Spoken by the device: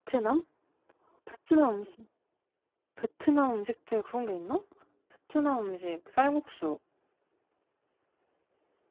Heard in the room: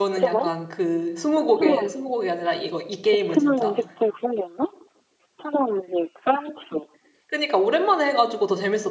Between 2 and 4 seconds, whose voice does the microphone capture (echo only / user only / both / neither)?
both